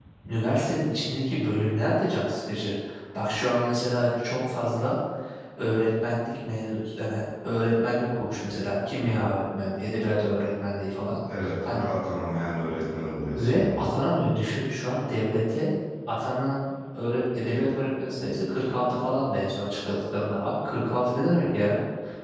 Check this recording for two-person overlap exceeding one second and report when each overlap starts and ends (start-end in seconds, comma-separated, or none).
none